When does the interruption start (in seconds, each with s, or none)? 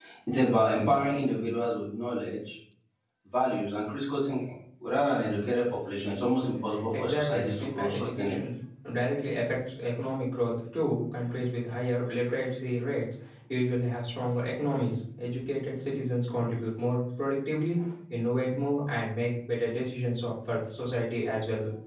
6.9 s